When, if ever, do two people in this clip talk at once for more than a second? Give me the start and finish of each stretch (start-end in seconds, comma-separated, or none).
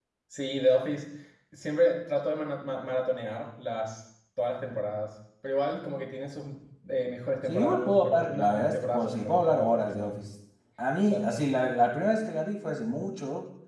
7.5-10.1